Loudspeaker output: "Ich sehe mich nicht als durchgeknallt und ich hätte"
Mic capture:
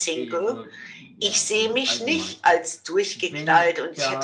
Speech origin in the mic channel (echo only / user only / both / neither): both